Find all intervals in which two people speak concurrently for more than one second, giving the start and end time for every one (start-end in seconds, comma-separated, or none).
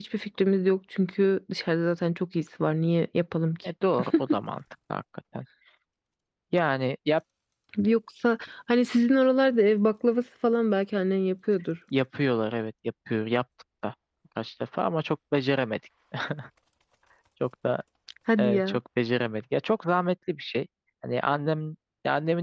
none